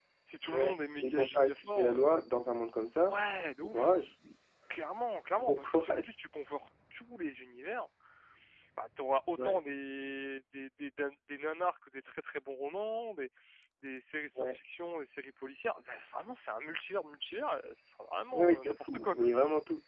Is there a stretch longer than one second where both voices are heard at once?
Yes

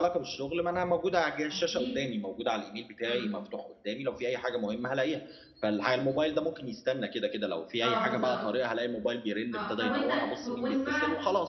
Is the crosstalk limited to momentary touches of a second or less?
No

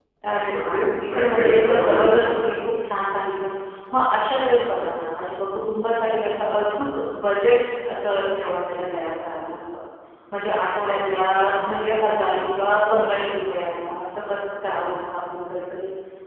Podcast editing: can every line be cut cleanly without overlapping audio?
No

